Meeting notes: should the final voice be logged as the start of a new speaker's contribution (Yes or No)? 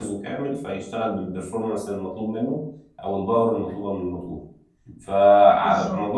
No